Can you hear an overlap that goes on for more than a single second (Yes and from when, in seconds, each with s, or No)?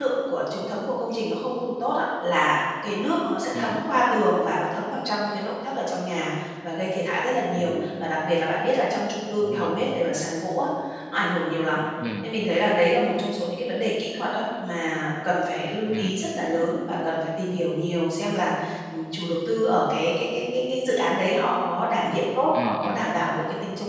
No